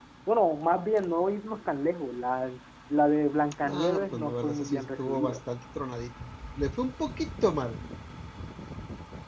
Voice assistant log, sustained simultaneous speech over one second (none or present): present